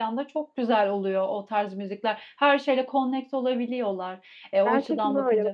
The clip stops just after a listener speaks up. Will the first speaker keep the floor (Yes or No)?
No